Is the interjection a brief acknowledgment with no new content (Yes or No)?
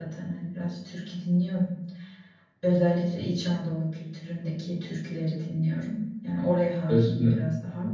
No